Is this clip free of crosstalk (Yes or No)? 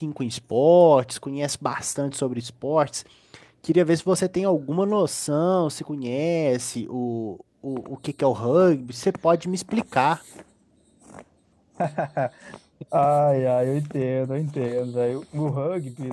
Yes